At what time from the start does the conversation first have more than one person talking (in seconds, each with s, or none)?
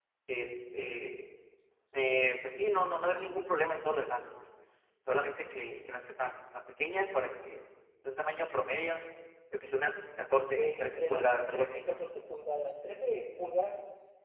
10.6 s